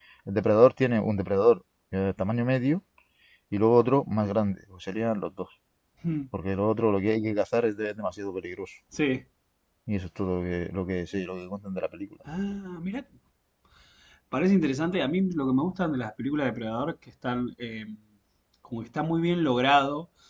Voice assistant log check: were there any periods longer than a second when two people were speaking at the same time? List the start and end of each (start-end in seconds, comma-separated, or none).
none